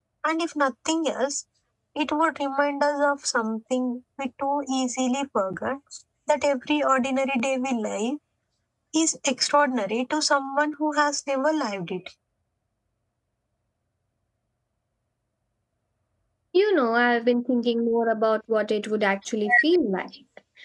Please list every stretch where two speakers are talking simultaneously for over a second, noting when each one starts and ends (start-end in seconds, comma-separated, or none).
none